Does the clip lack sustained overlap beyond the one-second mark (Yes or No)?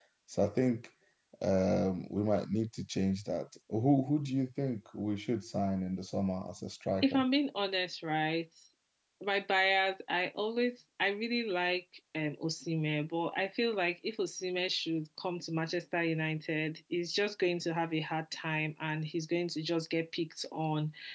Yes